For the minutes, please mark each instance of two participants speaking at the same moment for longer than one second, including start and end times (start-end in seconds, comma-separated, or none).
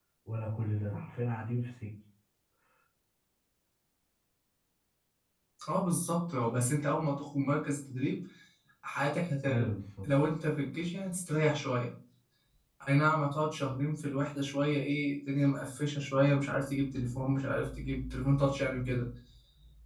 none